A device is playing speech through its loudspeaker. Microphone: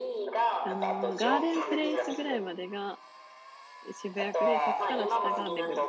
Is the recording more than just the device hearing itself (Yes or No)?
Yes